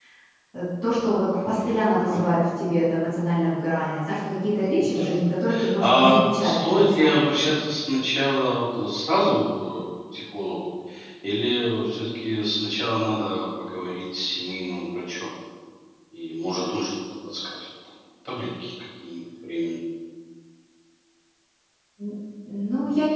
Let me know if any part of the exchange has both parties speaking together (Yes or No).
Yes